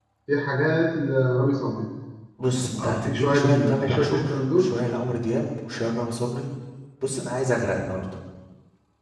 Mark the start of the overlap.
3 s

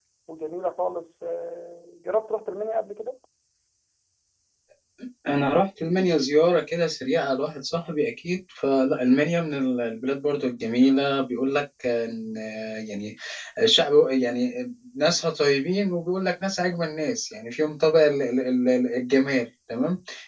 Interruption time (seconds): none

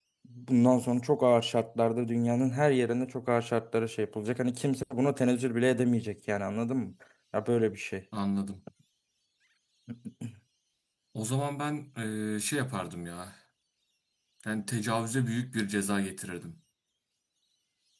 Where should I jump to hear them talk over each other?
none

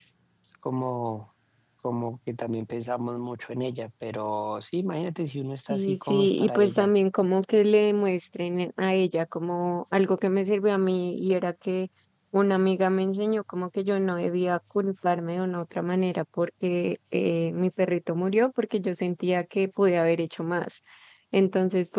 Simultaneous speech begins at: 6 s

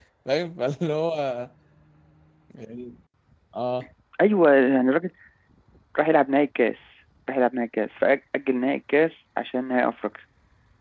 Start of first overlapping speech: none

